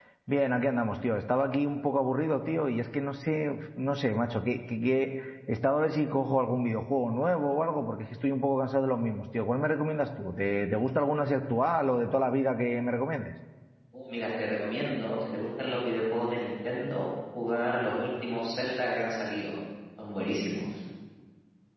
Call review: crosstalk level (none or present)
none